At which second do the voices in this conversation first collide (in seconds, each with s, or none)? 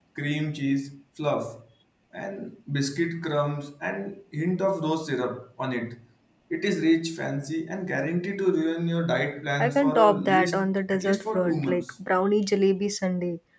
9.6 s